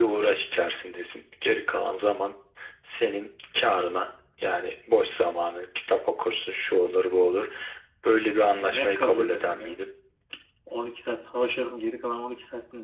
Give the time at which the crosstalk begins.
8.6 s

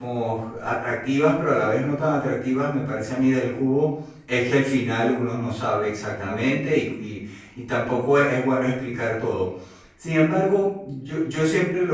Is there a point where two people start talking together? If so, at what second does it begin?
none

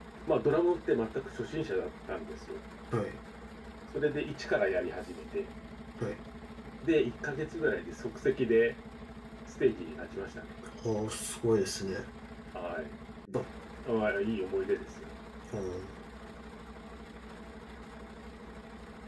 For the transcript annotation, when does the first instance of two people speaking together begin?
none

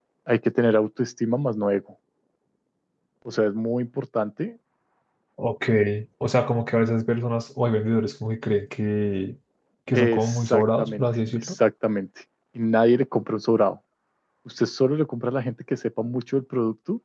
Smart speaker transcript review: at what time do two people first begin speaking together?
9.9 s

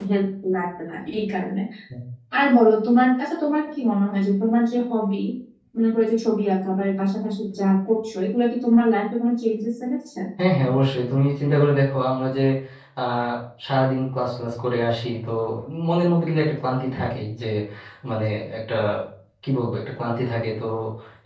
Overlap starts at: none

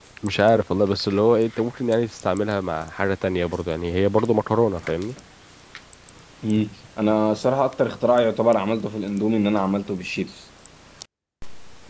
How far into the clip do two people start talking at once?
none

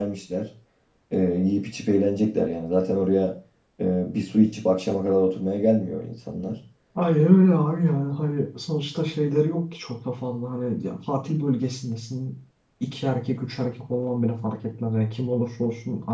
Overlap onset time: none

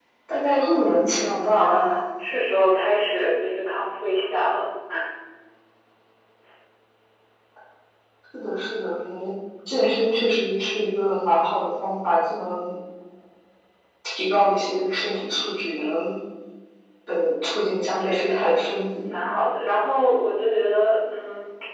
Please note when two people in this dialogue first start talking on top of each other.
0.6 s

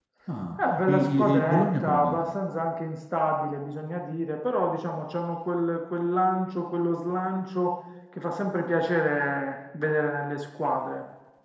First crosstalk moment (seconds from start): 0.8 s

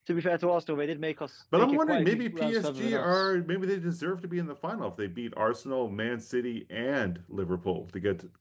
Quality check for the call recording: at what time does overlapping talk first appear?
1.5 s

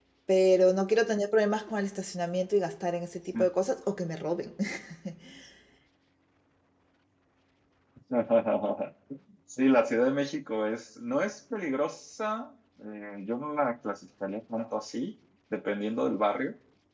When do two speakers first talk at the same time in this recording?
none

